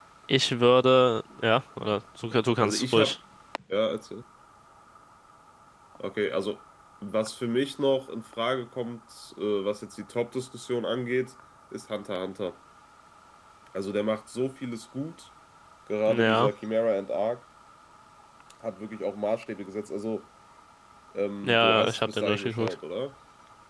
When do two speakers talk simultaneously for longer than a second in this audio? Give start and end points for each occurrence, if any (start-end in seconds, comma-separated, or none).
21.4-22.7